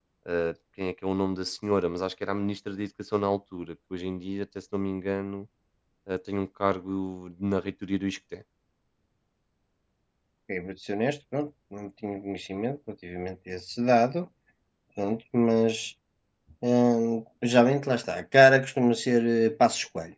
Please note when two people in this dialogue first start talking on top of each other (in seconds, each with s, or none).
none